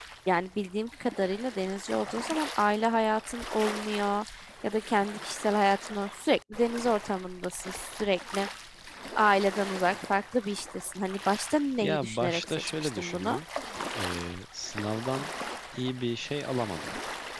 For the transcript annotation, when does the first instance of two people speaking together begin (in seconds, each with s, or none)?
11.8 s